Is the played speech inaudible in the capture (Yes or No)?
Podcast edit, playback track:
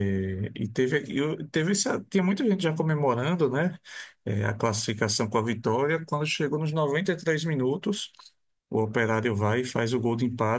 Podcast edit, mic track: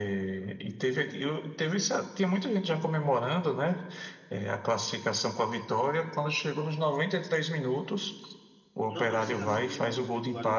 No